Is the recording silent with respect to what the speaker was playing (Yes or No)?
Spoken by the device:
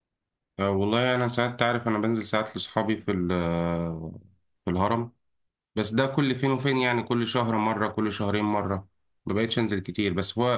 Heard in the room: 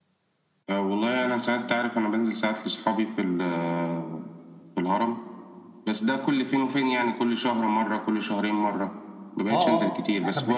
No